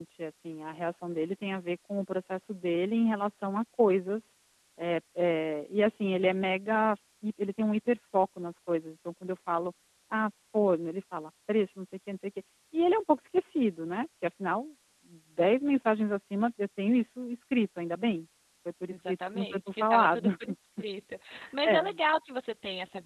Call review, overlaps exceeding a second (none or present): present